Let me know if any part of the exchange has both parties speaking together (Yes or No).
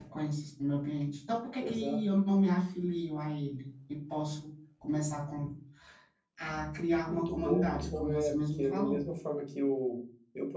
Yes